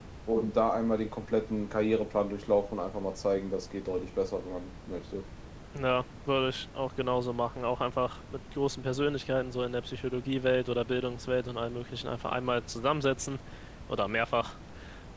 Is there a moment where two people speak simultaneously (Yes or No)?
No